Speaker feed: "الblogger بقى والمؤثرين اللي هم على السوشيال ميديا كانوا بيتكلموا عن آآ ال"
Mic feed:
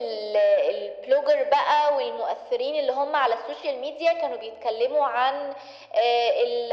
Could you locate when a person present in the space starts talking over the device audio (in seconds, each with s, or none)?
none